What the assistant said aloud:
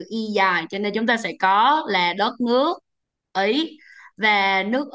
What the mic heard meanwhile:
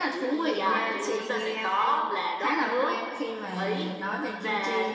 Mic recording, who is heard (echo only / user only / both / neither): both